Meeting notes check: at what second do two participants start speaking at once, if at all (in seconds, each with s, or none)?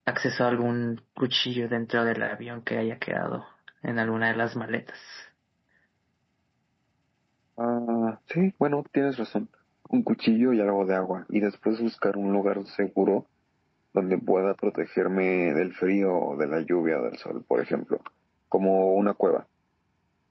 none